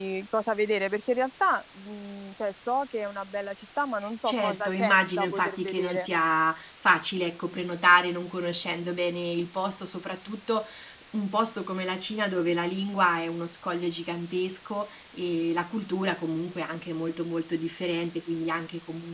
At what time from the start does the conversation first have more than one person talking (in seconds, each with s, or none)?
4.2 s